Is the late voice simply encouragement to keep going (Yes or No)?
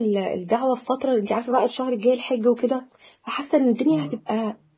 Yes